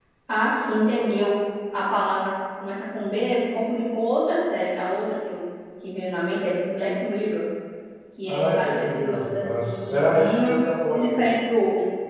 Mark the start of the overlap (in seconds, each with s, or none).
8.3 s